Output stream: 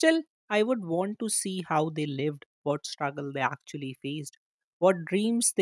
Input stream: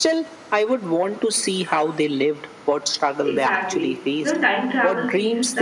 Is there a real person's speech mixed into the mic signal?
Yes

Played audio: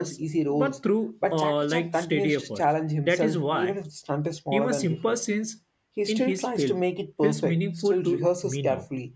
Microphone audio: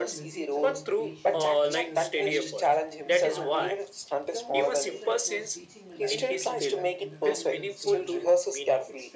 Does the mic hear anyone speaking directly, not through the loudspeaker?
Yes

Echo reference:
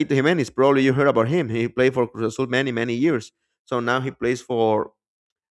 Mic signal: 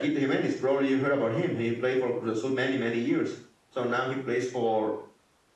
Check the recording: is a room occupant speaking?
No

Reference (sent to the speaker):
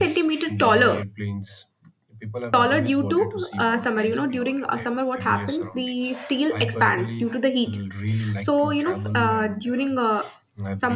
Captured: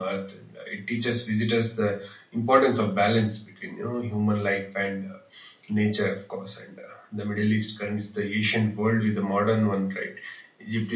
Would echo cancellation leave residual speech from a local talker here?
Yes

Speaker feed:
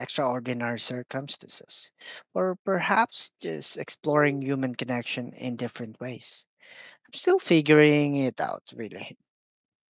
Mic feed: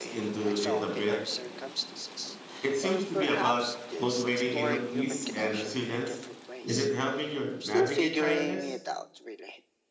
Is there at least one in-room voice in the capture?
Yes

